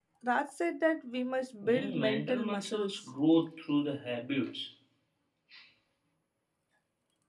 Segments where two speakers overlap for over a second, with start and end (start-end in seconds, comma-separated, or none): 1.6-3.0